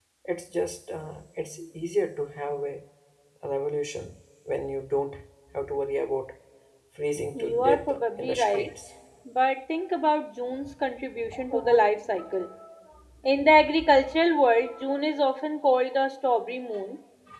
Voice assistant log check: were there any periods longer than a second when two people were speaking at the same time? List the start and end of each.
7.3-8.7

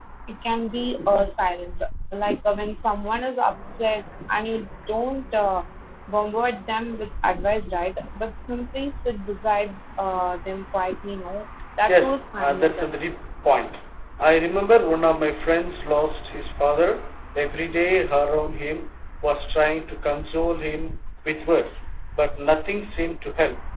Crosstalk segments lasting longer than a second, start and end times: 11.9-13.2

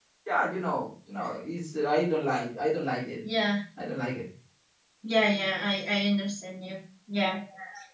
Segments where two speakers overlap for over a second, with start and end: none

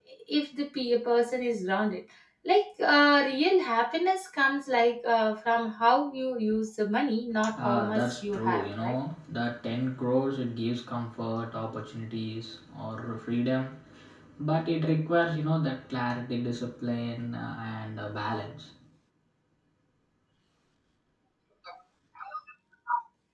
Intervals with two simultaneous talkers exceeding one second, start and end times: 7.5-9.0

